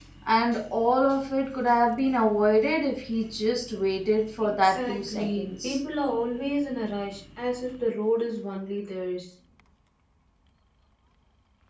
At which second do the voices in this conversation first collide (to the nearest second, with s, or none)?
4 s